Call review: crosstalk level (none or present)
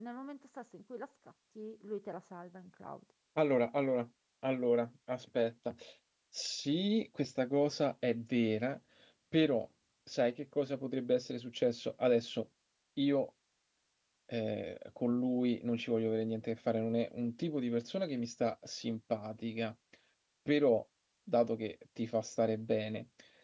none